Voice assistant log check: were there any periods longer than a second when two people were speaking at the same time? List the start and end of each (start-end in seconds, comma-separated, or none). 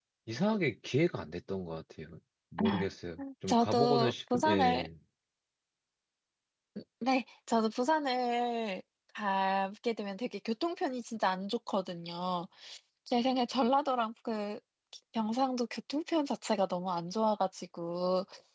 3.5-4.9